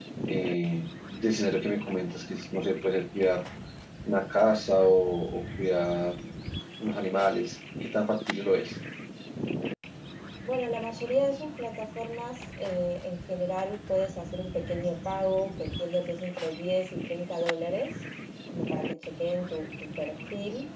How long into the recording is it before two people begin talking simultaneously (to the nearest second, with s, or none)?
none